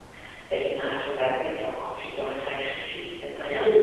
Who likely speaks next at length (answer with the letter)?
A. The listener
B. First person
A